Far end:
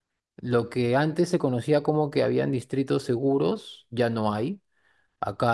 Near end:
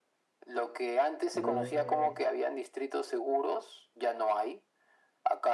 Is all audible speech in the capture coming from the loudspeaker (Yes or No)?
No